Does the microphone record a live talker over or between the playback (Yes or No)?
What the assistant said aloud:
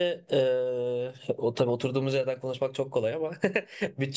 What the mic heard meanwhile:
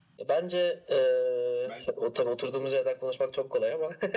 Yes